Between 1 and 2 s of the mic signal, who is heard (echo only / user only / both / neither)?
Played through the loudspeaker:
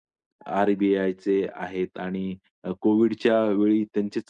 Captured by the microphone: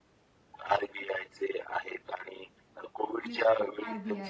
echo only